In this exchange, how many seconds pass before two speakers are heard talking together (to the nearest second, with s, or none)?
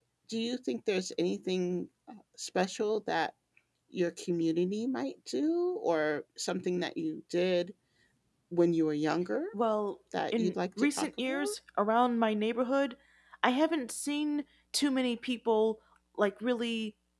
10 s